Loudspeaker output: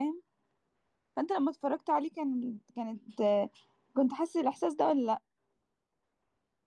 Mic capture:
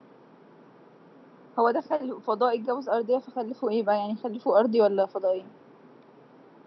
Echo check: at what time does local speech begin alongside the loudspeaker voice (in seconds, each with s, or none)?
1.6 s